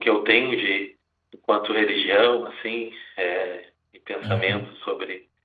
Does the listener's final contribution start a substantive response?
No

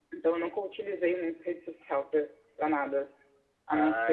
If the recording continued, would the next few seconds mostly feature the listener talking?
Yes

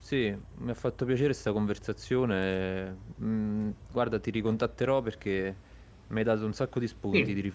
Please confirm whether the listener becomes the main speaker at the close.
Yes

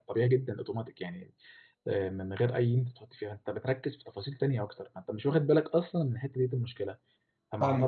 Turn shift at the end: No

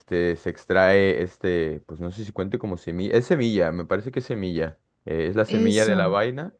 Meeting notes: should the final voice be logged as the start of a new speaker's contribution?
No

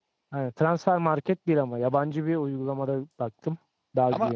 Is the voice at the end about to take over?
Yes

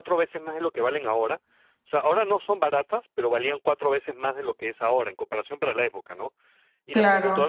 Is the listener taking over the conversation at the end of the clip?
No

